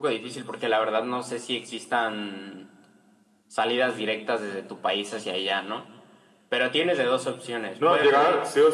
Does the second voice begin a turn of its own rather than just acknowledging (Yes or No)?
Yes